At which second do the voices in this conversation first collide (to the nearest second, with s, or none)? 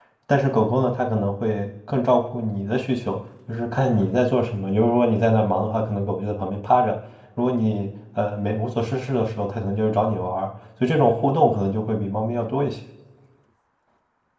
none